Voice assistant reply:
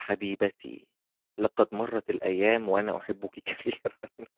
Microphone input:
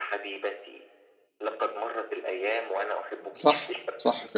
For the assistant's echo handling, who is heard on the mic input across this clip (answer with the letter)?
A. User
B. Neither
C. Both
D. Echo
C